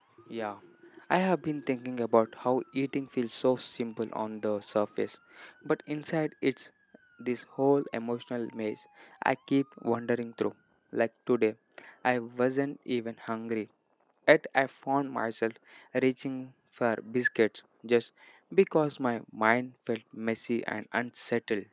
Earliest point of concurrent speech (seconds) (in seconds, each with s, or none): none